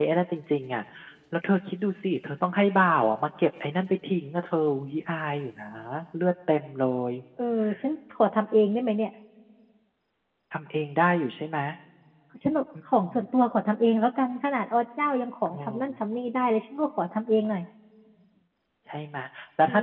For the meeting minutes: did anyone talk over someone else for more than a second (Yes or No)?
No